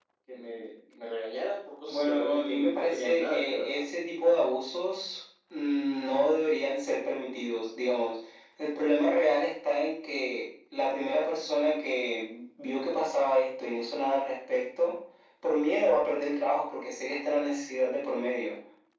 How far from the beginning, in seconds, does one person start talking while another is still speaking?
2 s

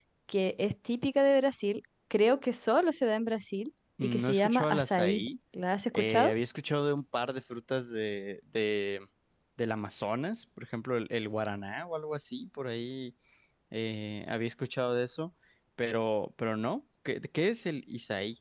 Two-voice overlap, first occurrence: 4 s

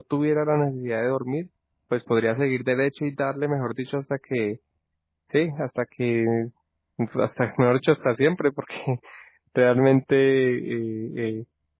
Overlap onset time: none

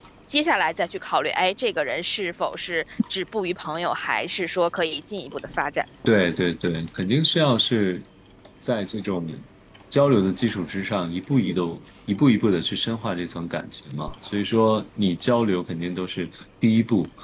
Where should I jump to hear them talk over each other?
none

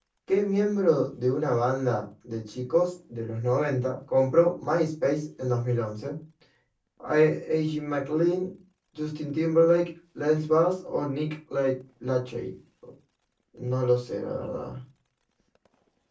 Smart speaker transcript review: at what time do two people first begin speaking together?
none

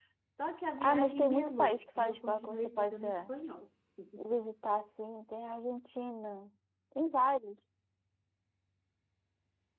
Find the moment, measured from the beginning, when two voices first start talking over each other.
1 s

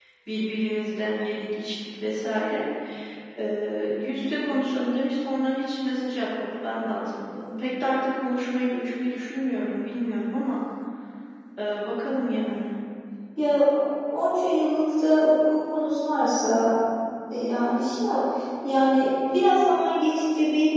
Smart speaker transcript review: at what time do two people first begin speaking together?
none

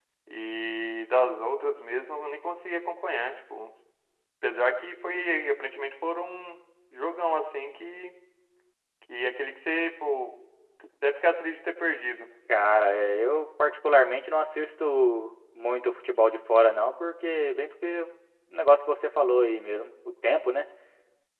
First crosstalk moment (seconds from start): none

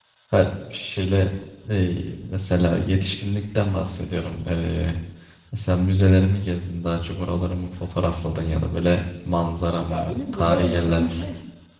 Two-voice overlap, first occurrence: 10 s

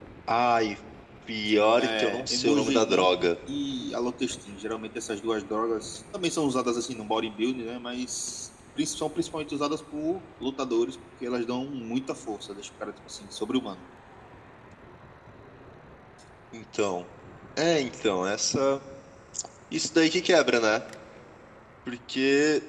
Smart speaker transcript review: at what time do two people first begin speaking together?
2 s

